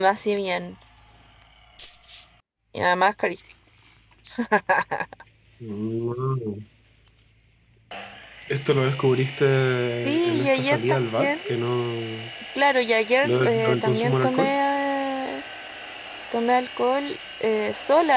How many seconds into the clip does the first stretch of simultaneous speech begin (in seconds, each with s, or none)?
10.0 s